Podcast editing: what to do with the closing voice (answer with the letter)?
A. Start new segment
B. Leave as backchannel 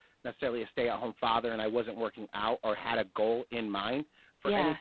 B